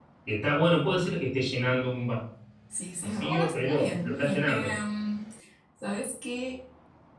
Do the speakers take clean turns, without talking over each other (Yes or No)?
No